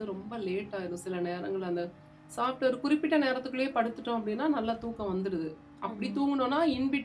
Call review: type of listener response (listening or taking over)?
listening